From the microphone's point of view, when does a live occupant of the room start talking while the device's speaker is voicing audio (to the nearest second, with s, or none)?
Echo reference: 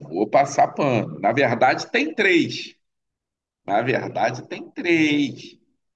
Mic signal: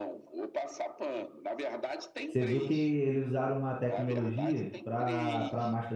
2 s